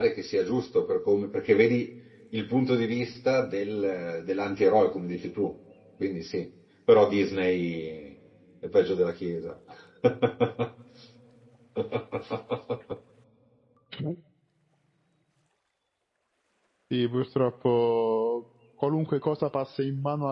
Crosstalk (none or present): none